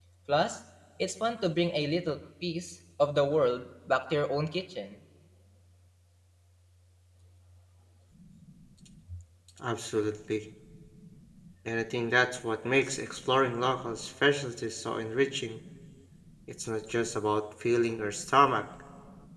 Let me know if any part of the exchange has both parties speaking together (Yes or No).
No